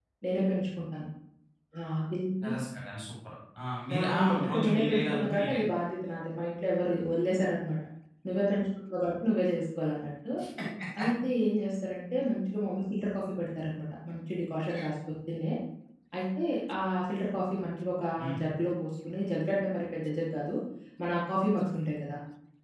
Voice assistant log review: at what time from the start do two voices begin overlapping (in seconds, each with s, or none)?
3.9 s